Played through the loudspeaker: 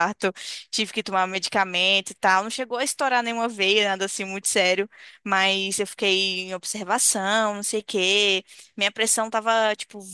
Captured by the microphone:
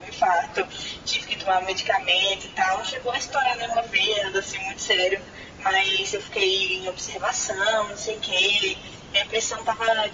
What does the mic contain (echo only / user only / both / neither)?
echo only